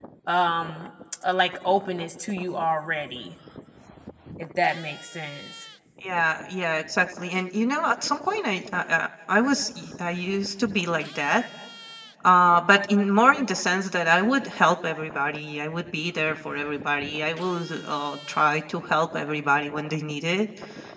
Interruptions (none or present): none